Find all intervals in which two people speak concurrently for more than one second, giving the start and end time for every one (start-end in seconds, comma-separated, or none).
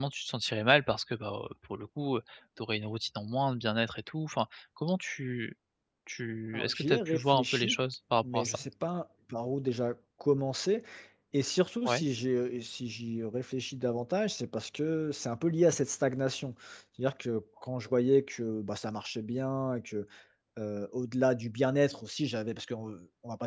6.5-7.8